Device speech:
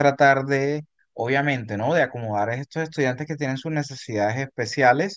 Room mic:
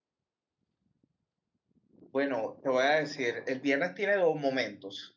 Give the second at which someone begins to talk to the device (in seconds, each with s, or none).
2.1 s